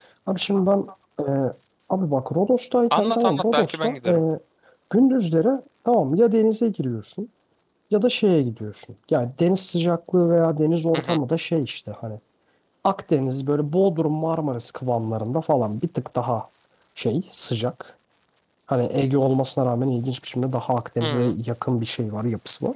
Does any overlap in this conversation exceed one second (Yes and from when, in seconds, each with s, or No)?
Yes, from 2.9 s